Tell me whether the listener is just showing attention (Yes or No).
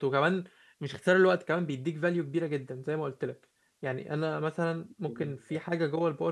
Yes